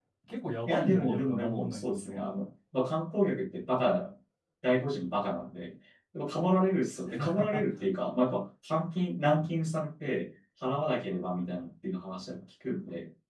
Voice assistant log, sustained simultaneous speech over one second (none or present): present